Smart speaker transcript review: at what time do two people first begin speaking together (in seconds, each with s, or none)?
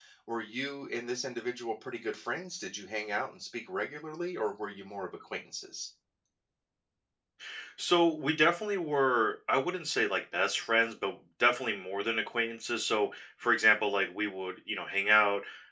none